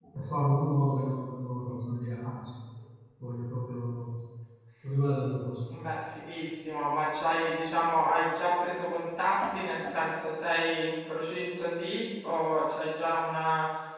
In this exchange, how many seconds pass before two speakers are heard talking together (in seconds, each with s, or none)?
none